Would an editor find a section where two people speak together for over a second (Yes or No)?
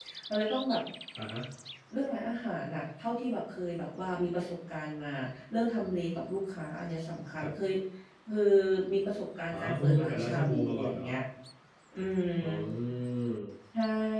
Yes